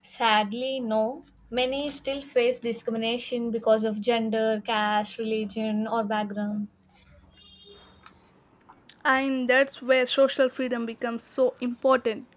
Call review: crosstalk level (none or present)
none